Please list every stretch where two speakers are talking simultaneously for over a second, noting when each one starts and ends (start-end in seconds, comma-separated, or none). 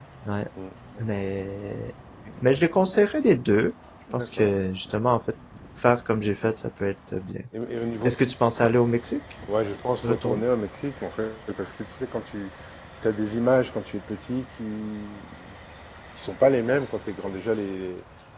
none